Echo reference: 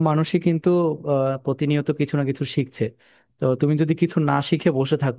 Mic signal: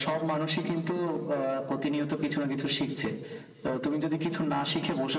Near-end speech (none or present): none